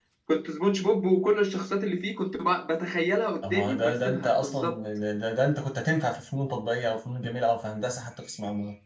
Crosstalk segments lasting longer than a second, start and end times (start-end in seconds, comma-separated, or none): 3.5-4.7